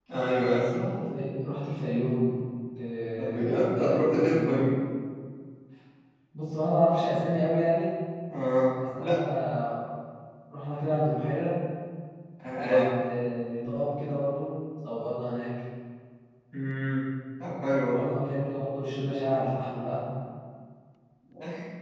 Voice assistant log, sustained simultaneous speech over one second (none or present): present